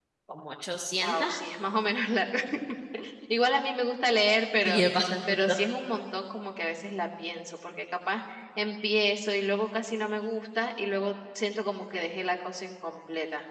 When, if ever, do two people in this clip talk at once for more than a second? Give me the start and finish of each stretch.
none

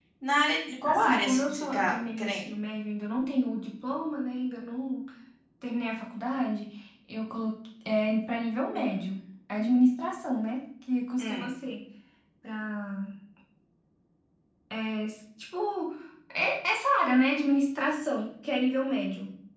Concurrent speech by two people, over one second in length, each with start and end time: 0.8-2.5

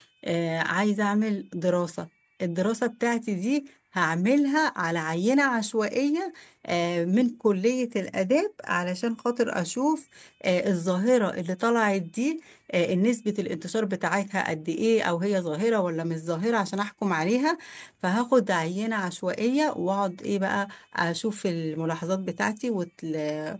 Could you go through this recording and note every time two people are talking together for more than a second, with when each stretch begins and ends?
none

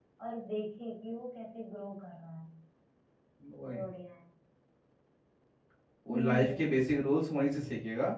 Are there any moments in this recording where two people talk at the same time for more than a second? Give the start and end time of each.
none

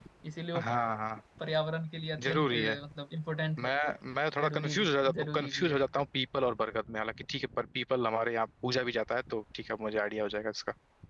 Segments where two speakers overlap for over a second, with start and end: 4.4-5.9

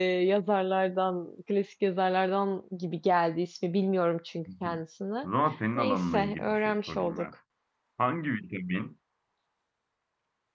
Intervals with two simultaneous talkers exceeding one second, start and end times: 5.8-7.3

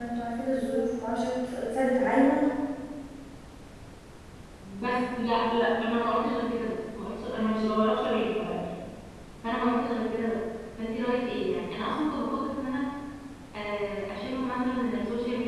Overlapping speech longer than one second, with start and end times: none

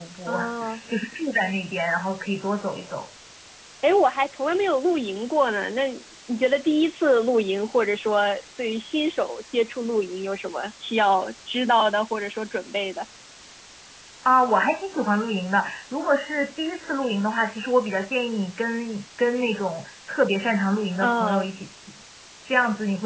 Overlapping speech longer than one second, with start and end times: none

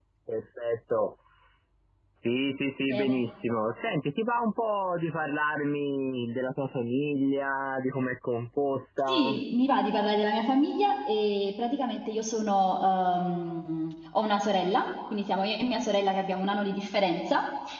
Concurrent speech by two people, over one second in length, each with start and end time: none

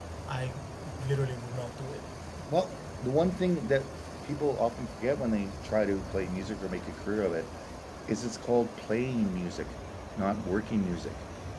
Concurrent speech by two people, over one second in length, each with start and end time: none

